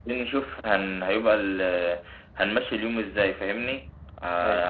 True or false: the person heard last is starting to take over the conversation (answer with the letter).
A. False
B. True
A